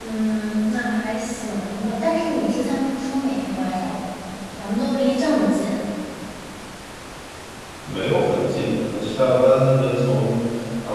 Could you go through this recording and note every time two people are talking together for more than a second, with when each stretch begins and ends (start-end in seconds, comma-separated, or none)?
none